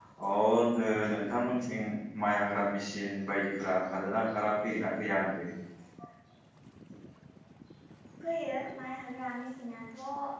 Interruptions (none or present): none